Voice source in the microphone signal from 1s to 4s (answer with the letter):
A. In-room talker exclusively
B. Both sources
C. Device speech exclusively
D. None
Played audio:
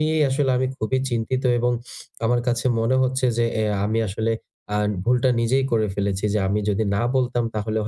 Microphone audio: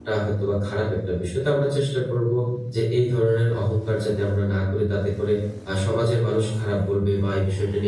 A